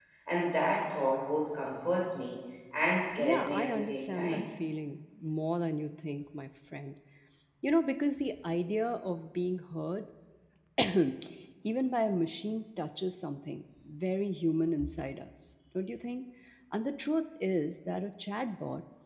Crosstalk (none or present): present